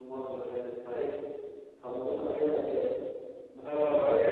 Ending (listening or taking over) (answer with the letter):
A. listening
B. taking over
B